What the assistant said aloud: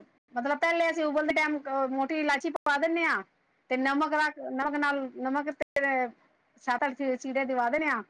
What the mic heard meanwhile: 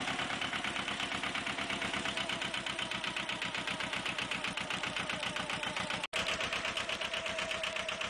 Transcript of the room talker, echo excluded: none

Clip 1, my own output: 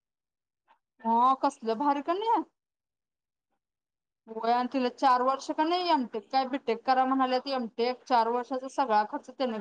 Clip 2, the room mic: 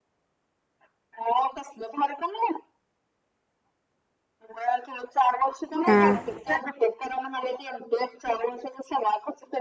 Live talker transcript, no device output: हा

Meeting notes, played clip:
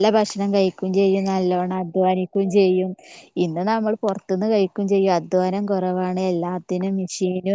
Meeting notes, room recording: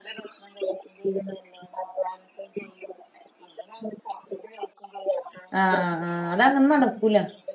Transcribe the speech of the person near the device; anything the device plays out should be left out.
ആഹ് ആ ആഹ് അത അങ്ങനെ നടക്കൂല

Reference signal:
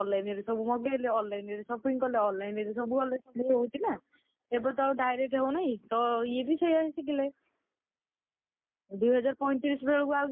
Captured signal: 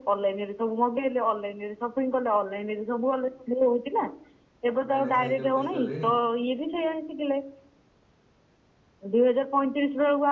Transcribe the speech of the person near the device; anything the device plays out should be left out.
ଭାଇନା ଖାଇକି ଅଫିସ ଗଲେଣି।

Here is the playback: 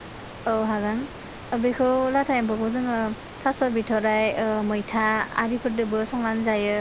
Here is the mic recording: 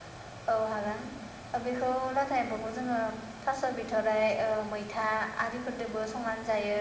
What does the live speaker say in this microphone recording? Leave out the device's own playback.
none

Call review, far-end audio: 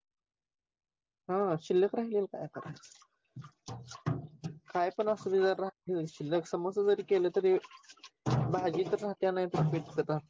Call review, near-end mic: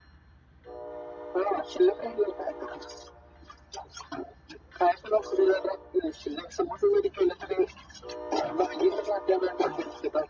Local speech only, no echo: none

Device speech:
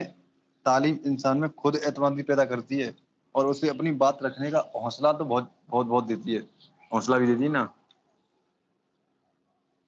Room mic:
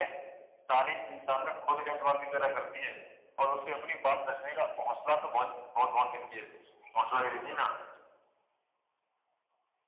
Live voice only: none

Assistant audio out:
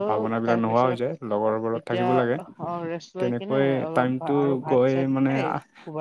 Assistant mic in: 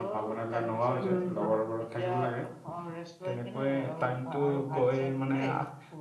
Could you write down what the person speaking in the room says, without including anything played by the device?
উম

